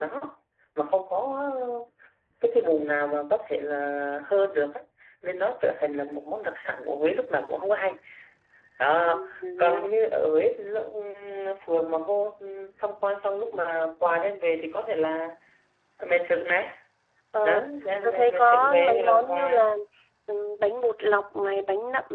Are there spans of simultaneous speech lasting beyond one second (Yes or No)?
Yes